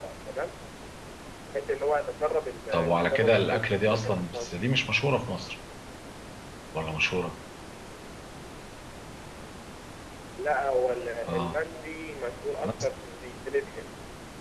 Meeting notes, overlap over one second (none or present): present